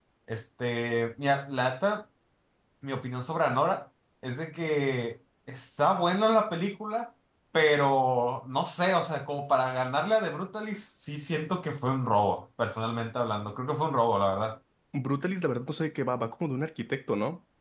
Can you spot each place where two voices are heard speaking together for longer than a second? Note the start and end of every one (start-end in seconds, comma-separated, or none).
none